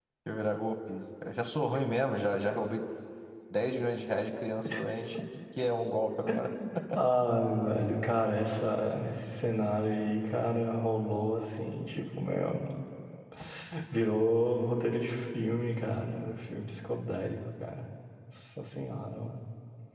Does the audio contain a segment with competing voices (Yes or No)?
No